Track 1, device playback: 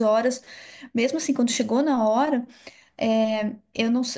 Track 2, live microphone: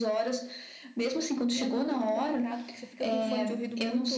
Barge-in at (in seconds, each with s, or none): 1.5 s